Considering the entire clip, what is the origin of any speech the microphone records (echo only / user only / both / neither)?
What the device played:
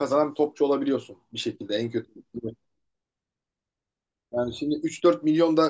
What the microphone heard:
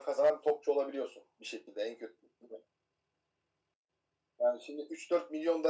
echo only